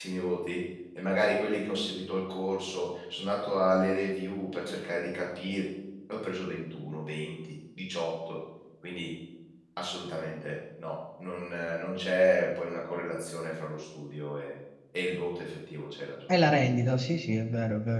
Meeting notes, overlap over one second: none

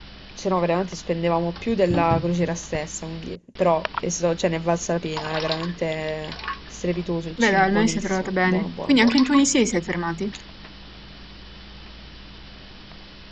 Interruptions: present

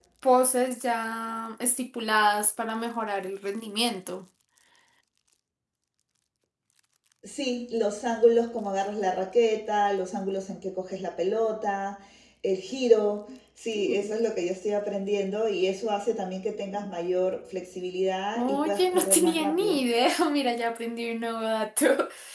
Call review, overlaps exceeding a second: present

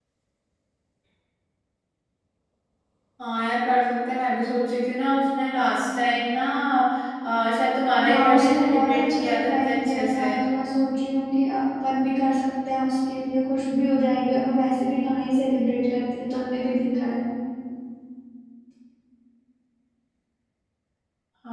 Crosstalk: present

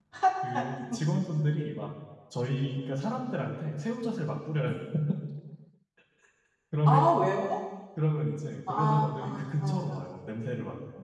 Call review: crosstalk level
present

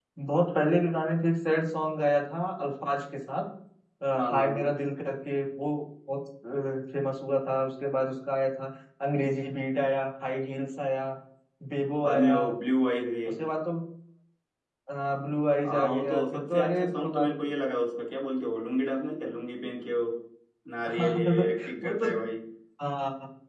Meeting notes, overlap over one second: present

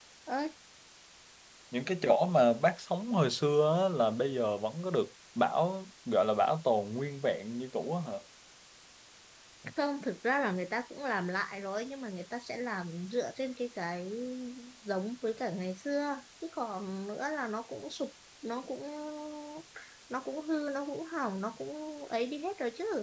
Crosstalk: none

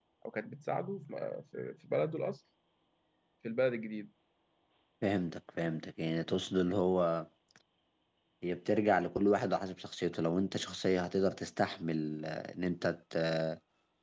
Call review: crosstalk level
none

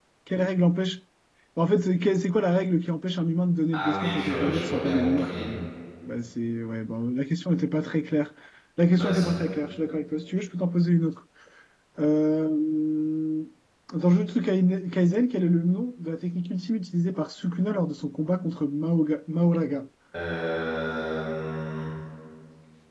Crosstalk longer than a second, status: present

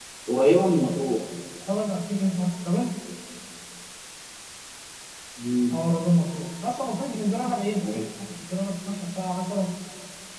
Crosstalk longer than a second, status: none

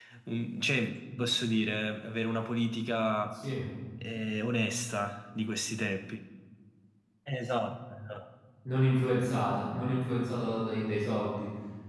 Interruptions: none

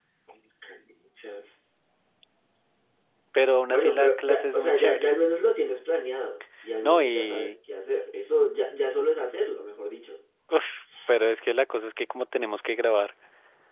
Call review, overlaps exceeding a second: present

